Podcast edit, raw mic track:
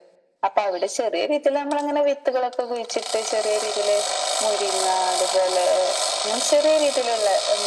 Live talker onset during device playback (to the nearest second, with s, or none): none